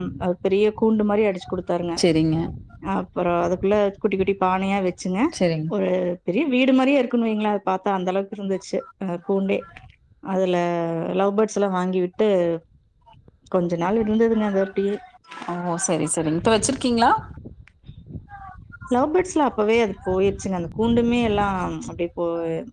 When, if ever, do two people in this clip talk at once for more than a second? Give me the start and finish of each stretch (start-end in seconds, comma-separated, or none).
none